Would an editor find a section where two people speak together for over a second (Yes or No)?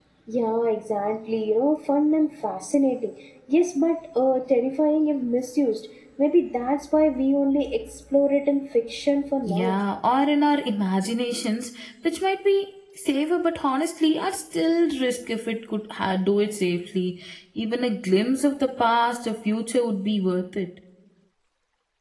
No